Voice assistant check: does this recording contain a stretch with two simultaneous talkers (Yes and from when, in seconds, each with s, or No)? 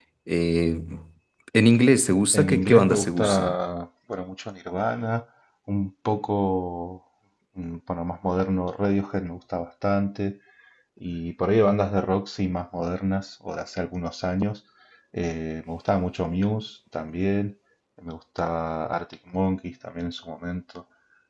Yes, from 2.3 s